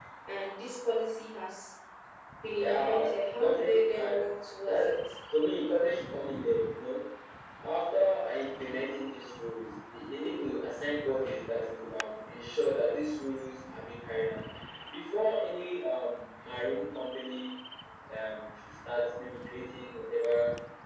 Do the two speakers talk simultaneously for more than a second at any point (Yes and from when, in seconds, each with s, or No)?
Yes, from 2.6 s